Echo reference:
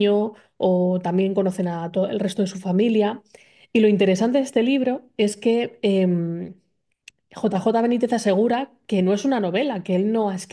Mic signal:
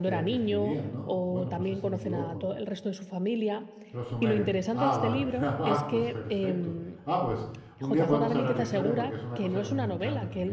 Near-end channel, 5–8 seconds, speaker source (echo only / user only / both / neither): both